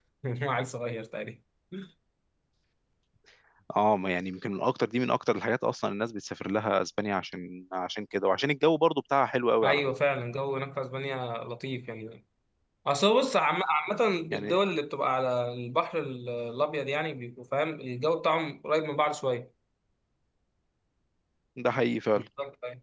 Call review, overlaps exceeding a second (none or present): none